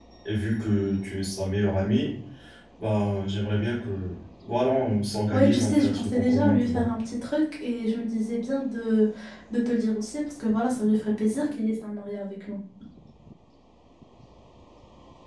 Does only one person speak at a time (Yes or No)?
No